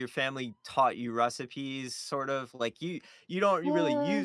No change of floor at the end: Yes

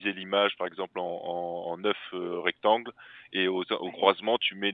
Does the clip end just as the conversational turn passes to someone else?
No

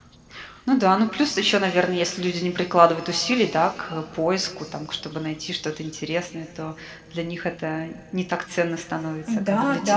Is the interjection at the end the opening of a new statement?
Yes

